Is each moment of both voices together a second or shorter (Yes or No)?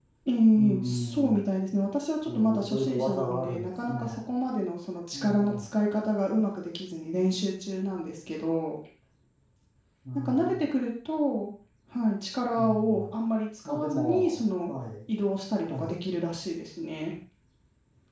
No